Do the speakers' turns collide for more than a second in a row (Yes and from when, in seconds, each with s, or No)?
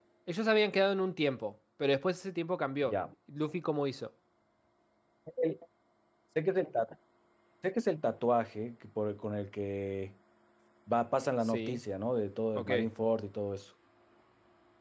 No